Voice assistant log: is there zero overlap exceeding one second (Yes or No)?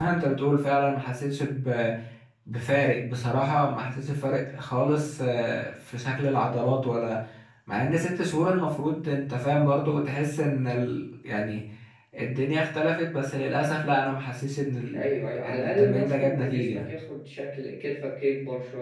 No